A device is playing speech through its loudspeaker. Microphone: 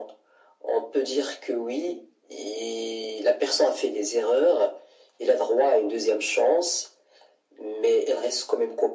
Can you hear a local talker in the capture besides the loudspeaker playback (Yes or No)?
No